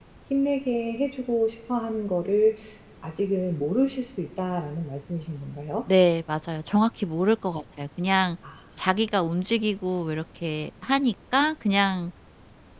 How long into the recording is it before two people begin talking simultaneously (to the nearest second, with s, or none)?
none